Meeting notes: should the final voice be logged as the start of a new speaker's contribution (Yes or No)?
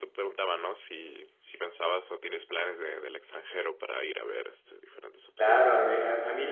Yes